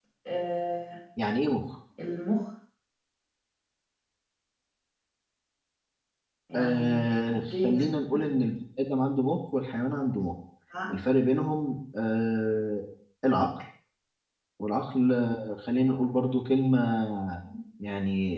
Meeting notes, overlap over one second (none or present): present